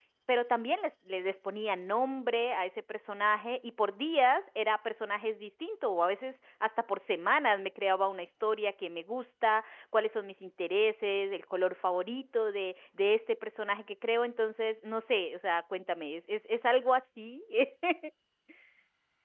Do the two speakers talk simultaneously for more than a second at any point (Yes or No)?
No